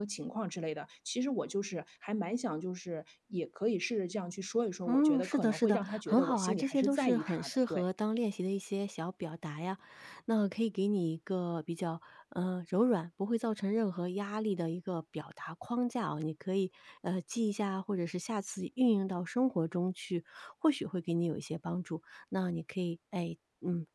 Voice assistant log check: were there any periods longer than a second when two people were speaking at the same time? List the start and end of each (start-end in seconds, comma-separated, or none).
4.9-7.8